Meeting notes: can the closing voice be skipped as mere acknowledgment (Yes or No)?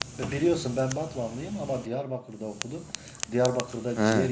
Yes